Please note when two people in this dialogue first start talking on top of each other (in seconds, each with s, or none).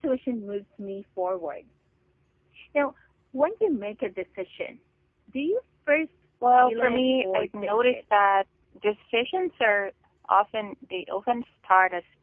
6.4 s